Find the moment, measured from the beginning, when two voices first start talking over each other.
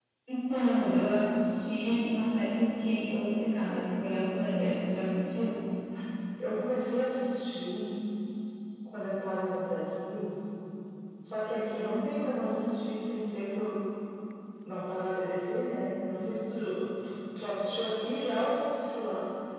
none

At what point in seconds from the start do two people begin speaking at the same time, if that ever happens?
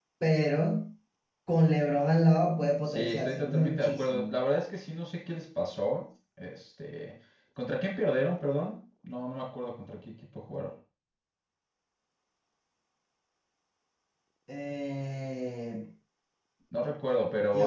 2.9 s

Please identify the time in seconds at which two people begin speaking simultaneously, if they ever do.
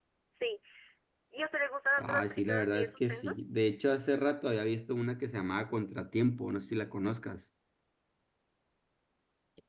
2.0 s

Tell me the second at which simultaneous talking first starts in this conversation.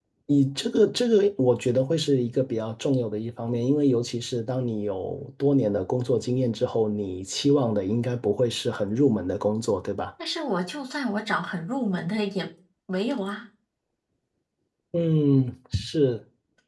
none

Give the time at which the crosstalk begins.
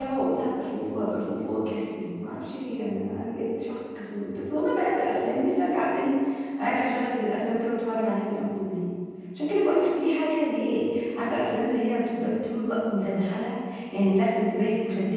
none

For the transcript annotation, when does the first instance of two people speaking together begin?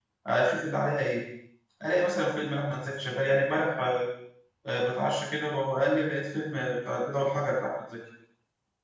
none

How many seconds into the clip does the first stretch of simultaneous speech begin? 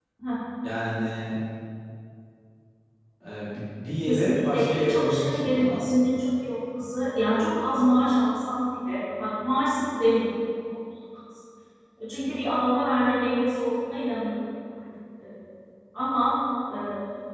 4.0 s

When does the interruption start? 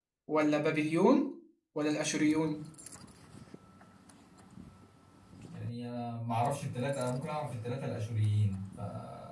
none

